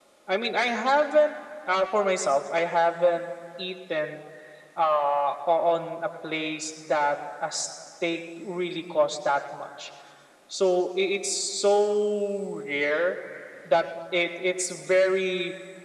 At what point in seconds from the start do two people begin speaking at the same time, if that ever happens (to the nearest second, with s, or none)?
none